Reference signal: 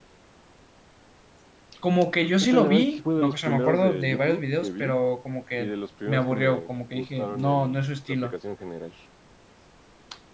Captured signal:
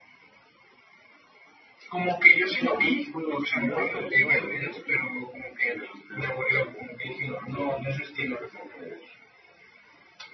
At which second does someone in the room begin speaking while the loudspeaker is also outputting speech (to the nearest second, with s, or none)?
4 s